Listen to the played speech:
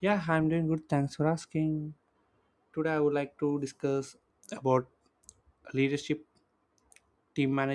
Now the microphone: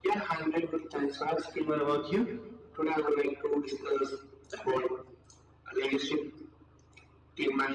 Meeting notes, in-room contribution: present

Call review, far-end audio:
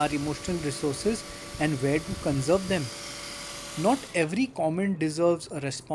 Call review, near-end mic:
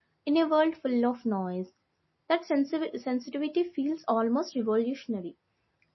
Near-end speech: present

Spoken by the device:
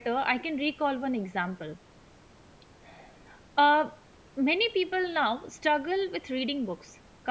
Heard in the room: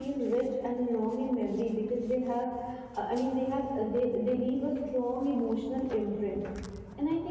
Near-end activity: present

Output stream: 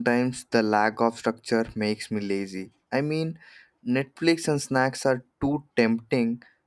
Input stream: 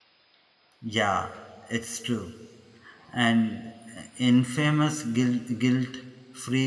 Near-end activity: present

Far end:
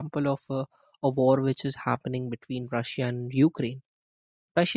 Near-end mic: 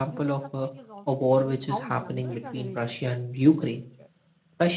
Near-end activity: present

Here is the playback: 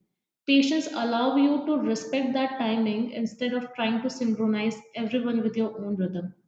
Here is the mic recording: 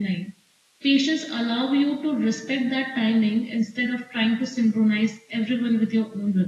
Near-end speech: none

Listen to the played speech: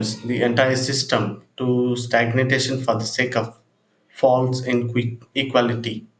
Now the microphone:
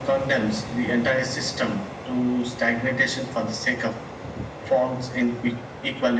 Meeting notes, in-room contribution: none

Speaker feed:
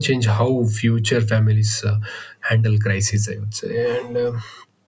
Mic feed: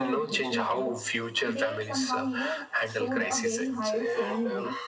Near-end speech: present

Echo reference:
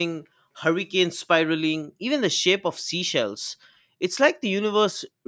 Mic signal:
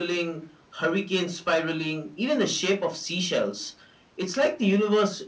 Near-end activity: none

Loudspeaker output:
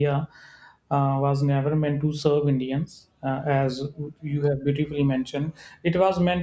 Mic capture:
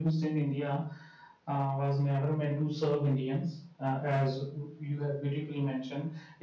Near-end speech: none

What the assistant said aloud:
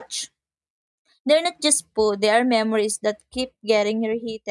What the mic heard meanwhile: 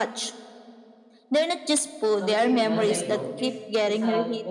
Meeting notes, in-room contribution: present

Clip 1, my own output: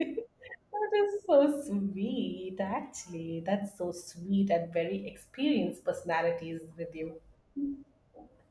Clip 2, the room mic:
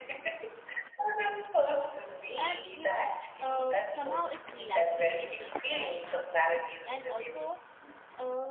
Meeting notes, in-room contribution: present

